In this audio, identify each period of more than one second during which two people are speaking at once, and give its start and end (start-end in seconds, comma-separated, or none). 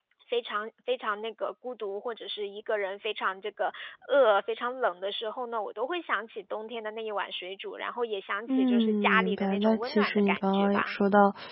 8.5-11.0